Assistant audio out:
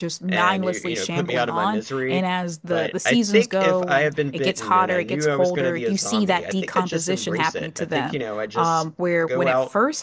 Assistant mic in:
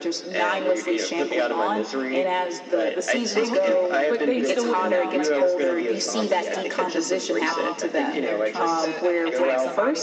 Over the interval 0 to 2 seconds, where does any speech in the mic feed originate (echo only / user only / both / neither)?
echo only